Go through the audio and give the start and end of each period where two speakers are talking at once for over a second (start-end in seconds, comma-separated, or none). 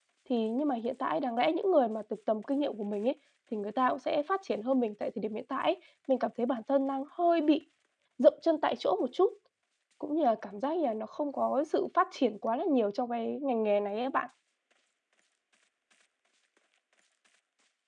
none